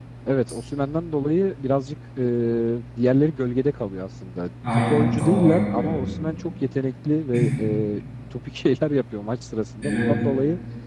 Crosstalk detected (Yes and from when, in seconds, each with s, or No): Yes, from 4.7 s